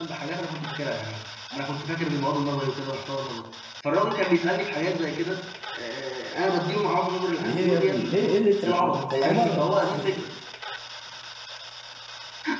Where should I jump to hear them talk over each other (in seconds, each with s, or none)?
7.4 s